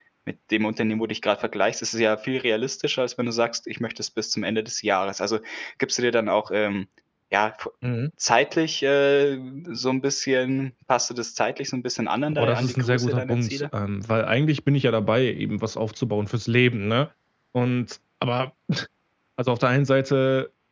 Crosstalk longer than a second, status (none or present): present